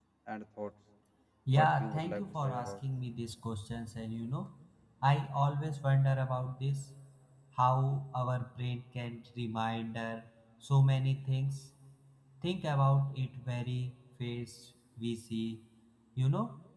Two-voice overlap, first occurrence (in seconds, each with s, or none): 1.5 s